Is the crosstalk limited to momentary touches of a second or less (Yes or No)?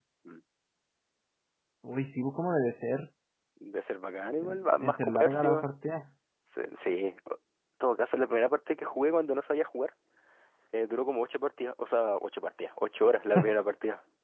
No